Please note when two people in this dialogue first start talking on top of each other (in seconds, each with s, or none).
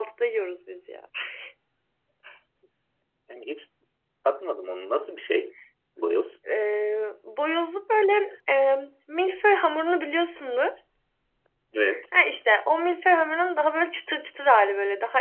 none